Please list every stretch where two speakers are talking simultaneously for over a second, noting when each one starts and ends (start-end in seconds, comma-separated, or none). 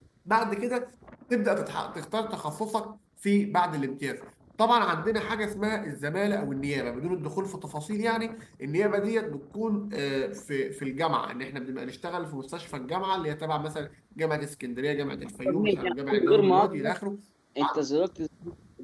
15.4-16.9